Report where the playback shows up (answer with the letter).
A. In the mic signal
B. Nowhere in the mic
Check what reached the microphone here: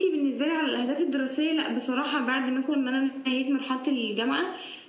A